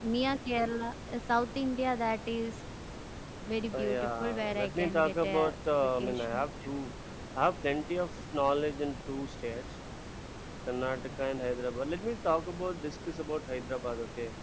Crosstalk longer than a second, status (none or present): present